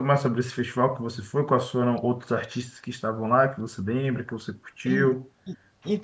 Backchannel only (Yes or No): No